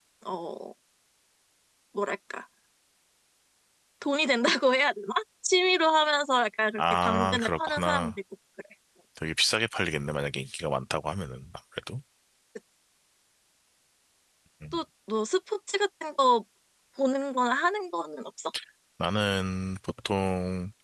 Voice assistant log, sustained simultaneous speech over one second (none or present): present